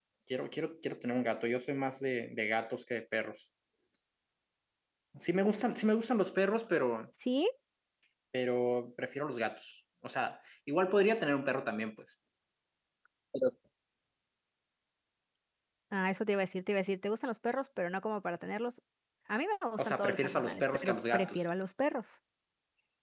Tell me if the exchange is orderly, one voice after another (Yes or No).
No